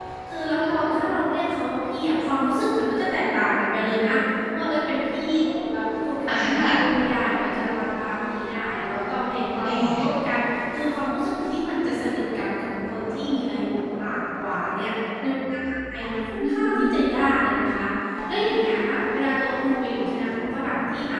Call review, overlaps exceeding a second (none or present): none